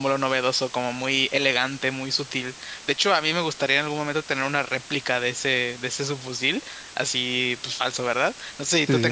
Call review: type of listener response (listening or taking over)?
listening